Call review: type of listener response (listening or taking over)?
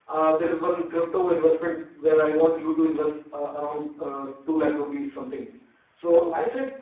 listening